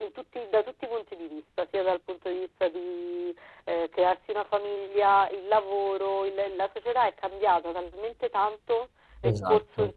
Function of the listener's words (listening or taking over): listening